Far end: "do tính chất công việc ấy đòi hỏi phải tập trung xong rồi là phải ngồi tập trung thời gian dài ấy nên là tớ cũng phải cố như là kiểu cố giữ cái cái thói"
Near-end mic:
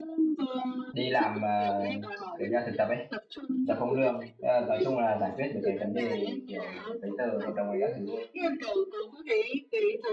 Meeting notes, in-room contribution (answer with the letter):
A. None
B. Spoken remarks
B